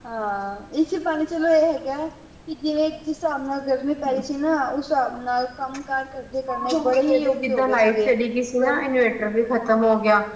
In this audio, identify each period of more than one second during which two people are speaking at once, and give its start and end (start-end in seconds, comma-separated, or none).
6.7-8.1